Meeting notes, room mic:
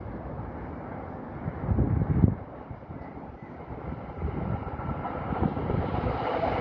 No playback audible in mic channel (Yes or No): Yes